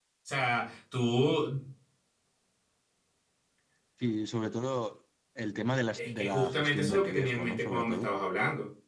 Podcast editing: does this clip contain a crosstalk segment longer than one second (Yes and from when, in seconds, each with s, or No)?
Yes, from 6.0 s